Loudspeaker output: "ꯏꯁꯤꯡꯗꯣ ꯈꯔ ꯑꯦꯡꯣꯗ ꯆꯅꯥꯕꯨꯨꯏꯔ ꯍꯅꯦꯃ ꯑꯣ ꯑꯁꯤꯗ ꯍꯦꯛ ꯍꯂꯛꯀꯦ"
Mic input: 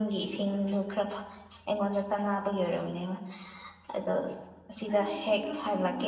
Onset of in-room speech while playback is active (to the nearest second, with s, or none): 5 s